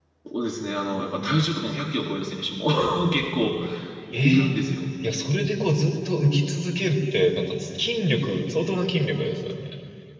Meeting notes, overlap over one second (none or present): none